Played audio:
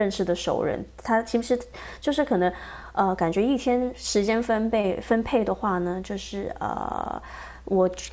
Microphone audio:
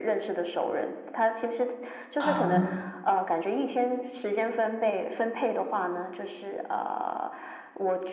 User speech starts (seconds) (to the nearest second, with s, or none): 2 s